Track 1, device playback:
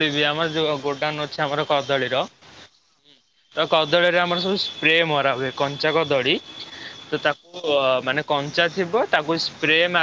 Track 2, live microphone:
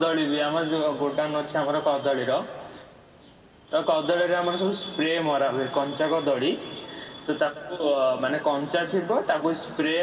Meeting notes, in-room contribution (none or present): none